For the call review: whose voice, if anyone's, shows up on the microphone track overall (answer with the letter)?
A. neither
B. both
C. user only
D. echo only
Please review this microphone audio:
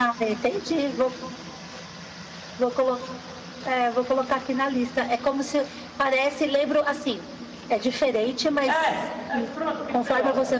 B